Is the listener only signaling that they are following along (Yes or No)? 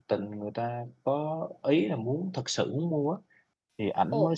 Yes